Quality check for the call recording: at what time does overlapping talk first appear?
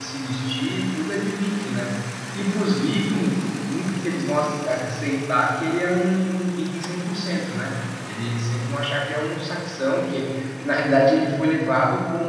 none

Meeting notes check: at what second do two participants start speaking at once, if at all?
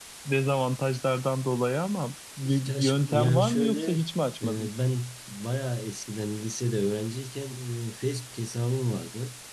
2.4 s

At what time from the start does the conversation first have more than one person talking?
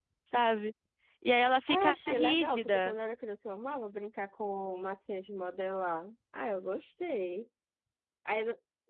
1.7 s

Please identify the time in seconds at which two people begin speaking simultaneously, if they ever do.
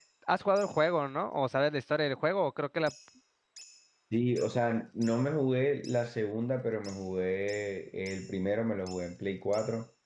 none

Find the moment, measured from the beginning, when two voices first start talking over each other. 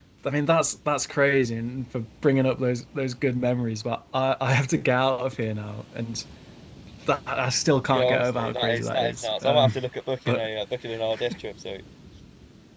7.9 s

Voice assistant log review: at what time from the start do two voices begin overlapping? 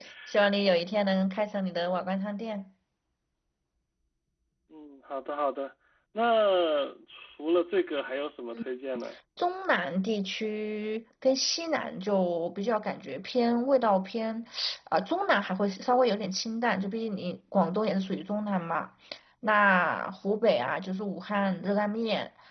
none

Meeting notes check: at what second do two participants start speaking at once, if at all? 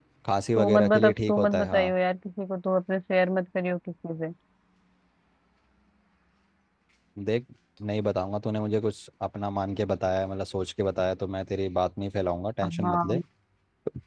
0.6 s

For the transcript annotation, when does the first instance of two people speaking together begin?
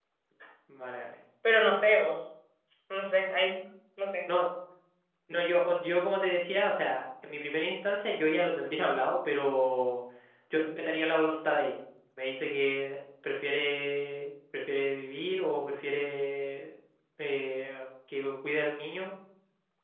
none

